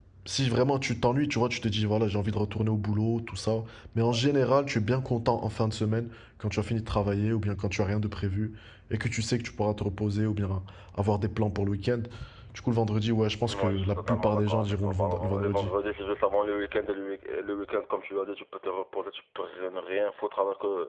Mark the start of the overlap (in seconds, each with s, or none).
13.4 s